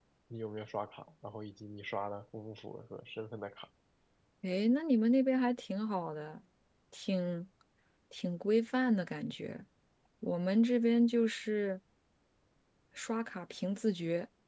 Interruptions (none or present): none